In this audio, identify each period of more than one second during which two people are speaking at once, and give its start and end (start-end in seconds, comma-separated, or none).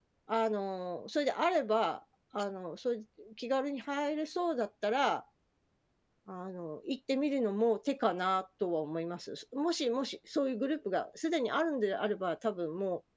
none